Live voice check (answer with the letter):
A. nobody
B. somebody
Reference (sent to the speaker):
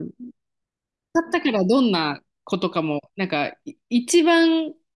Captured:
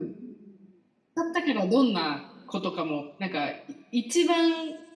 A